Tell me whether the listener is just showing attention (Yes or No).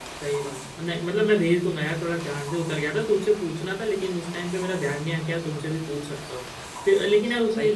No